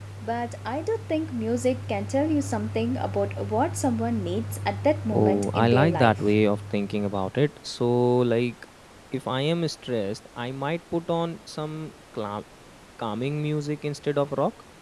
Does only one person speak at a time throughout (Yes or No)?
No